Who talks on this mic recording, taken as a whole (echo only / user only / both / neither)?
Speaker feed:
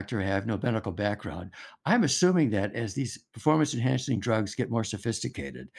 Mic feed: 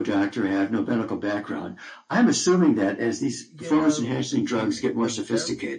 both